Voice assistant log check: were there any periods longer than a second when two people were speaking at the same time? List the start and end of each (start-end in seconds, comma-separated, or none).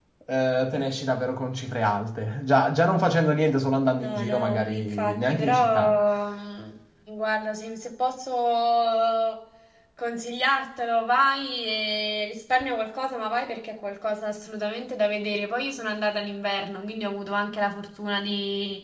4.0-6.0